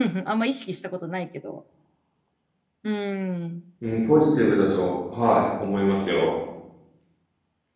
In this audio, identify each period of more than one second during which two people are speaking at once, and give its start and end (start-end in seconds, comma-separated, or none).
none